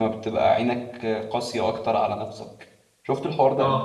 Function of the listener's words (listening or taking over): taking over